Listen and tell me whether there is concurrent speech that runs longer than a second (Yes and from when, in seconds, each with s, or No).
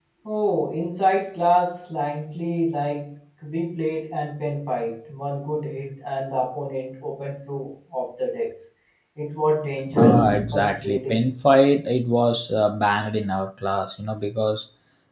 Yes, from 9.9 s